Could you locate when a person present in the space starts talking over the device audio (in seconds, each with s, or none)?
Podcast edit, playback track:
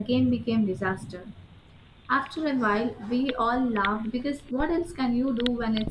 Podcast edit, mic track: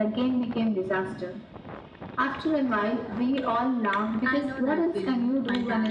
4.2 s